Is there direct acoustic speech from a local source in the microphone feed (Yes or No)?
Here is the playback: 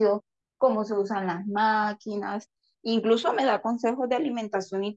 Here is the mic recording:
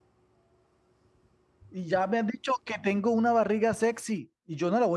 Yes